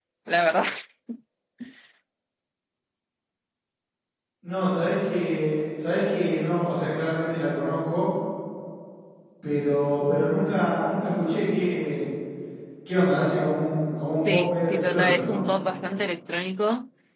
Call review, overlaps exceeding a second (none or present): present